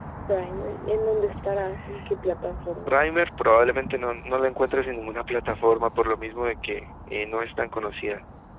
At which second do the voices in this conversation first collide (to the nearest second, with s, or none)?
none